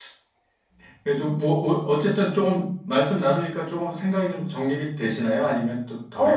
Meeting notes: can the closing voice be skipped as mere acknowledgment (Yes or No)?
No